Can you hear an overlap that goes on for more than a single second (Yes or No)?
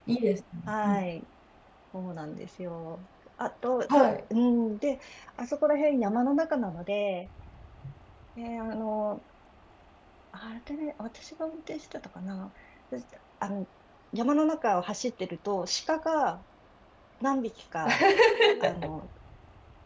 No